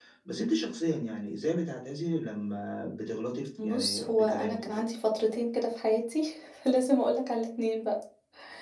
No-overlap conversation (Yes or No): No